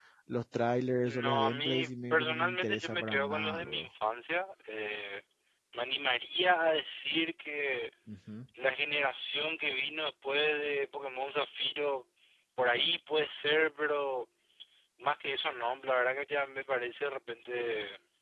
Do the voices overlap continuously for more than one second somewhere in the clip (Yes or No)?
Yes